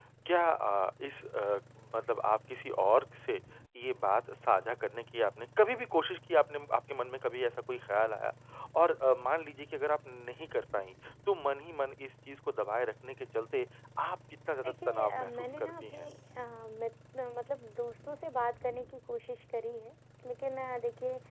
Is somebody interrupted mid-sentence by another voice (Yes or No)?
Yes